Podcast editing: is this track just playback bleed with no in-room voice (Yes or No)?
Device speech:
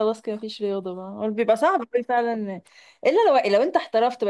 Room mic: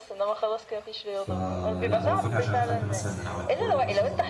No